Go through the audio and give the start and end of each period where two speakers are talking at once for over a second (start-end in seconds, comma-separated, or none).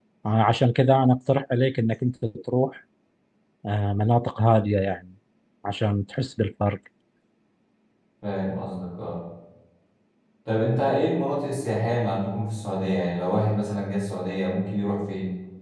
none